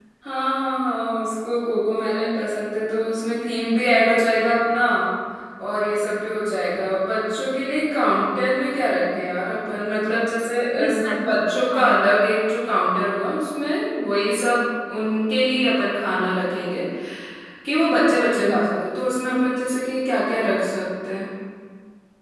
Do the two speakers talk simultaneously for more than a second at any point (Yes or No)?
Yes